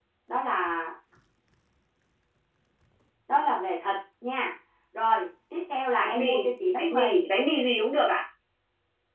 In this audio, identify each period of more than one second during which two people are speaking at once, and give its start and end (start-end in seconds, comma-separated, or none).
6.0-7.2